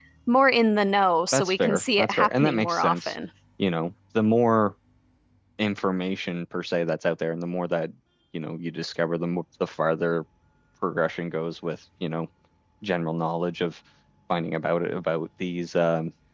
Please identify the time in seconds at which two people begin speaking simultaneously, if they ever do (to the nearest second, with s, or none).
1 s